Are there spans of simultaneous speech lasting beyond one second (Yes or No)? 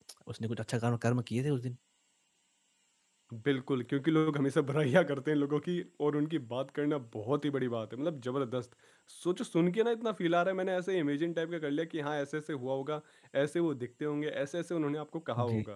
No